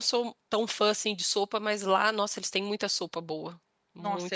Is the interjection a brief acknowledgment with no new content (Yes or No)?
No